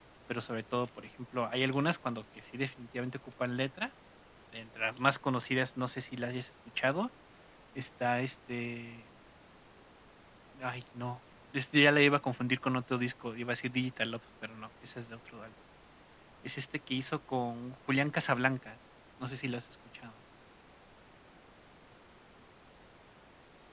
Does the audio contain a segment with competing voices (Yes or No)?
No